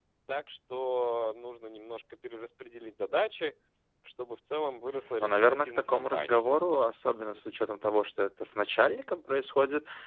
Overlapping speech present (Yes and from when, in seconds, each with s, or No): Yes, from 5.2 s